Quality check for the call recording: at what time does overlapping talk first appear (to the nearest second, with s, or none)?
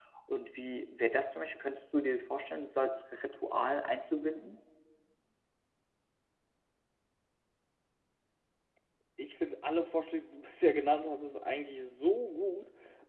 none